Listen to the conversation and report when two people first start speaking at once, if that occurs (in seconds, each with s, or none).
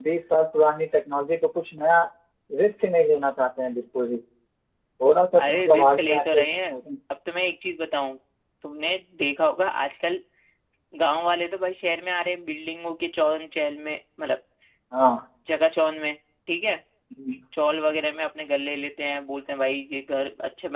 5.4 s